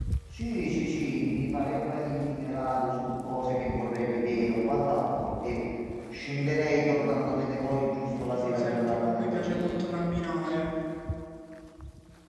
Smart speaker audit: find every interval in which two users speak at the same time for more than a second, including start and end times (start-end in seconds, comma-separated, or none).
8.0-9.7